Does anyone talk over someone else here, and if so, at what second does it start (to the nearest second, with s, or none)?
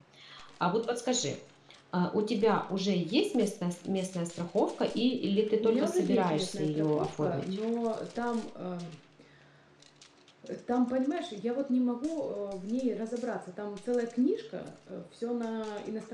6 s